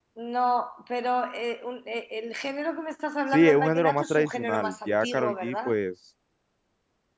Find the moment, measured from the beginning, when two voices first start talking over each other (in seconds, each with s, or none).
3.3 s